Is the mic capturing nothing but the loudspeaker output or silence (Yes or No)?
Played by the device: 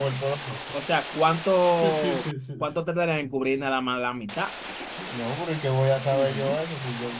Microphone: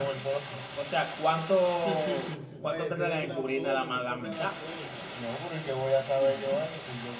No